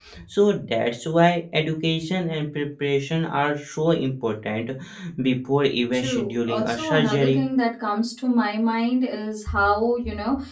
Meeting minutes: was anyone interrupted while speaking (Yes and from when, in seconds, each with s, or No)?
Yes, from 5.9 s